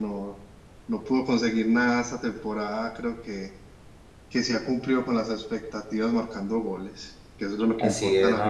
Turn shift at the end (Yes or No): Yes